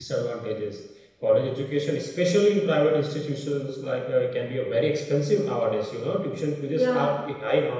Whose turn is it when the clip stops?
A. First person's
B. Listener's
A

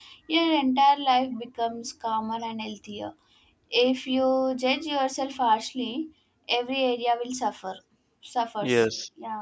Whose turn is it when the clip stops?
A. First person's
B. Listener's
B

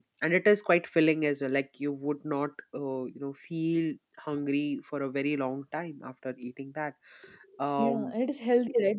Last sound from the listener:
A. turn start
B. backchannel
A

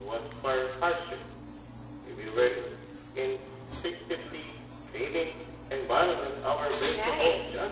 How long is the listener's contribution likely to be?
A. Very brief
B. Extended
B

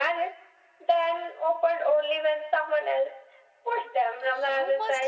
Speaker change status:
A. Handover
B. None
A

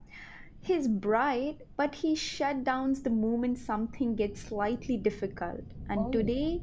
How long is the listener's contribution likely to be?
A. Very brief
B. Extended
A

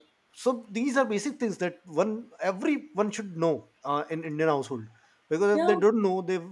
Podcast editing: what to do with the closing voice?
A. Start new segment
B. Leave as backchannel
B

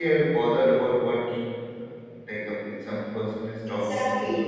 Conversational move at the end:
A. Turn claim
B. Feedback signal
A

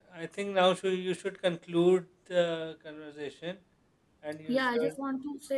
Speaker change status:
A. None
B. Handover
B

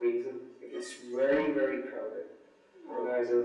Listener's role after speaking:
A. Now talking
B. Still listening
B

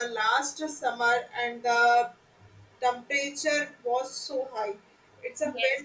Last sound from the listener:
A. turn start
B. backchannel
B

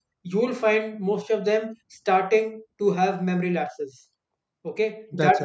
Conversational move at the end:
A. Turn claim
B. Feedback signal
B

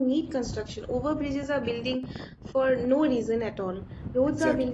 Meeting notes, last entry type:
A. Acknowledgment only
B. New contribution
A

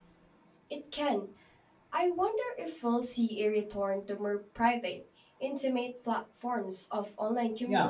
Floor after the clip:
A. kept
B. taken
B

